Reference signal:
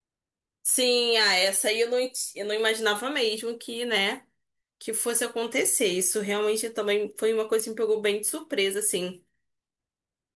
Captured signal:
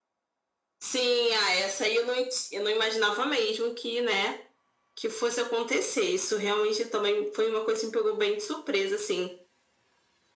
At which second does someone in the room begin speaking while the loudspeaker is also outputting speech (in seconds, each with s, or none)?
none